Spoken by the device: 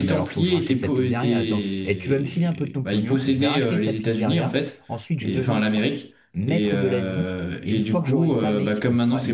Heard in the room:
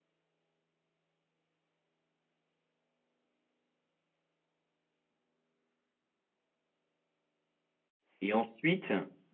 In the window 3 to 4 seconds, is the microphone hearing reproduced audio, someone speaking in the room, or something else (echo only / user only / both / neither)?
neither